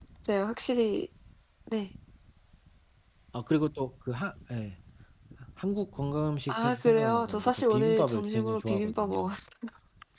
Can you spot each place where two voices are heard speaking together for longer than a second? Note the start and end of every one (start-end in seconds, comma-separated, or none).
6.5-9.3